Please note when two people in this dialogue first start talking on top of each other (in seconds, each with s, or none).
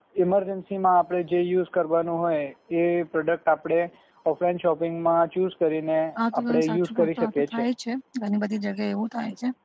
6.4 s